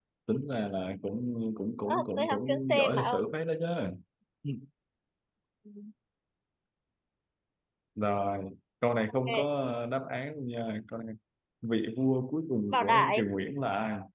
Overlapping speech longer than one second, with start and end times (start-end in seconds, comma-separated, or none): 1.8-3.2